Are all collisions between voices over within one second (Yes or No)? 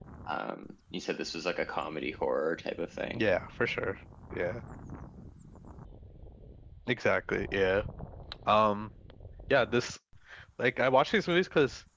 Yes